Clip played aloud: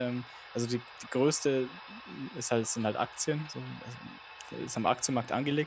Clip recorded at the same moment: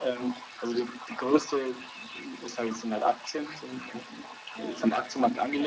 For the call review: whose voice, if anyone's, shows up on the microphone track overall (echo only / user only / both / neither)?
both